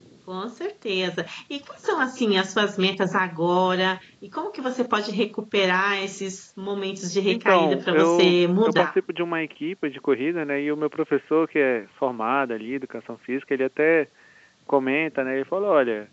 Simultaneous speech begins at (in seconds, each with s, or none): 7.3 s